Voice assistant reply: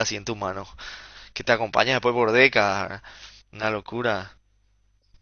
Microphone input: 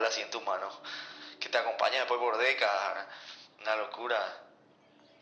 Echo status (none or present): present